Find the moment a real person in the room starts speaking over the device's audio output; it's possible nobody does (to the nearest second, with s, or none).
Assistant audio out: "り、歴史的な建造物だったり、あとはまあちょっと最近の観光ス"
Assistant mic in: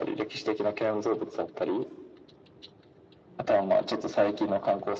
none